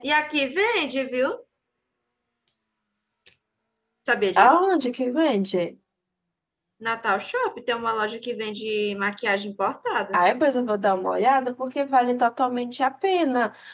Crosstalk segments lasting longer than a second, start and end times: none

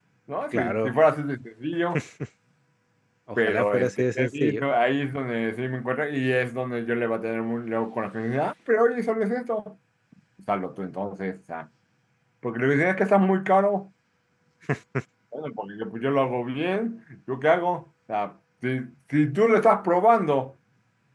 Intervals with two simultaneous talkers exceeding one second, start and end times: 3.4-4.6

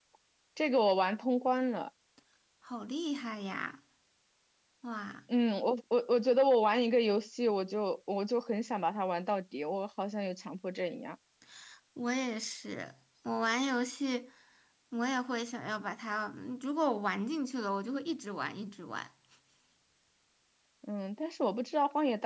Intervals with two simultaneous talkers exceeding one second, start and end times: none

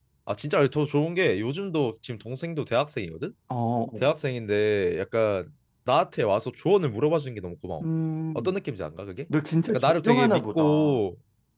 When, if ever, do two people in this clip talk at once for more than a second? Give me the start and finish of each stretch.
9.7-11.0

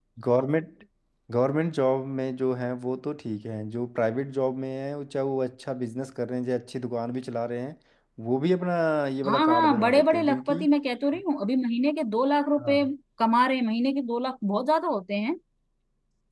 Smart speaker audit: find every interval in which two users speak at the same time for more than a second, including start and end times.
9.3-10.6

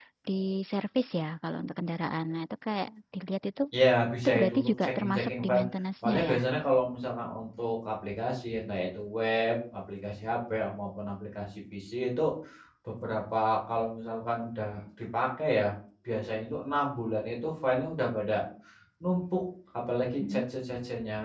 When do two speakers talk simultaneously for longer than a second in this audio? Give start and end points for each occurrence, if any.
4.2-5.6

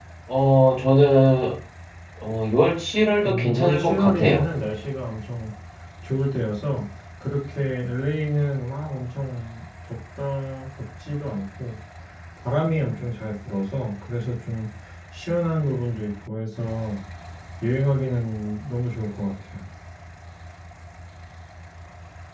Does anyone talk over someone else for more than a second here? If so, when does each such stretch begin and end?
3.2-4.5

